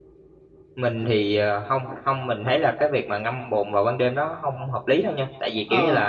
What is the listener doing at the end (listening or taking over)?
listening